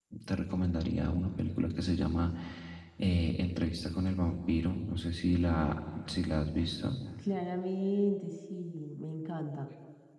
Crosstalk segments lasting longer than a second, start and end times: none

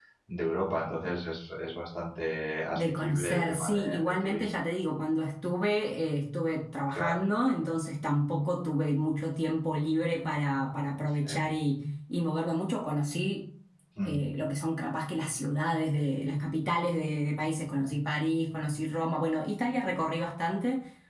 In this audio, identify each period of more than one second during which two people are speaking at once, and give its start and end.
2.8-4.5

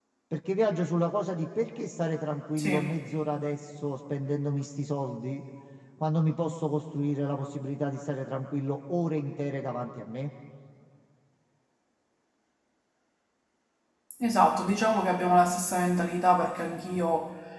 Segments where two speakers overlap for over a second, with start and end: none

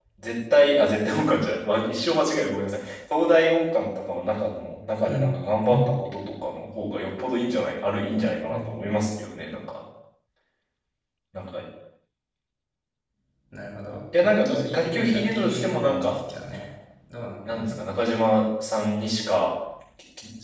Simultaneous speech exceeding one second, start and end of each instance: 14.2-16.2

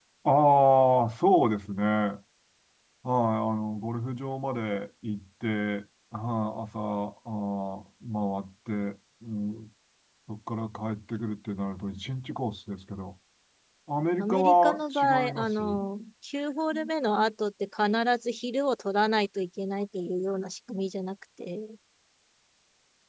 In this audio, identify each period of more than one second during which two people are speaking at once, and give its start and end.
14.2-15.6

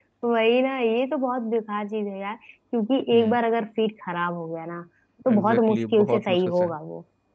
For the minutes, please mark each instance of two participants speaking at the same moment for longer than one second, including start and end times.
5.3-6.7

